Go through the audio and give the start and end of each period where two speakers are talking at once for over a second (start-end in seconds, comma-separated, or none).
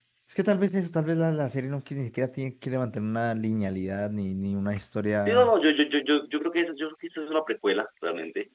none